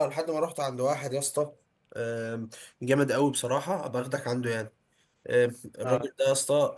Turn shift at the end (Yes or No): No